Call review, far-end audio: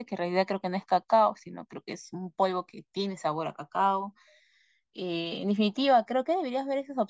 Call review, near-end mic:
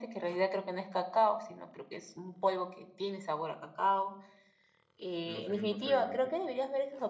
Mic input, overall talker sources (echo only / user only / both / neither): both